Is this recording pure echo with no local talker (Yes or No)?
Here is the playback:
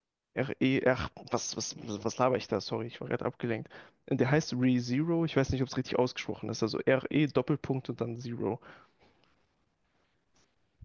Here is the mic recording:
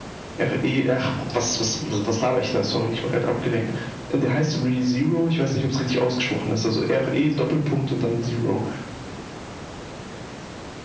Yes